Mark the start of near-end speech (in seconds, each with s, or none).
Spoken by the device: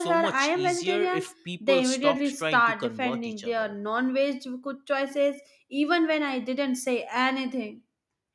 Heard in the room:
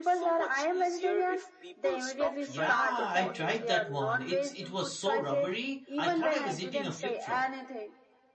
2.5 s